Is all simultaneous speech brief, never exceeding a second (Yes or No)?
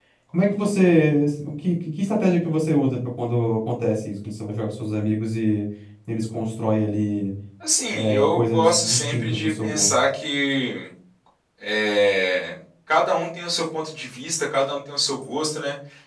No